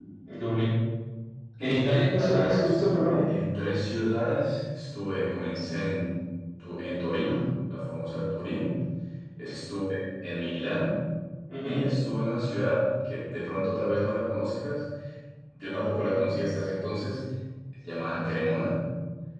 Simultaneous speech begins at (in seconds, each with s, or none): 1.9 s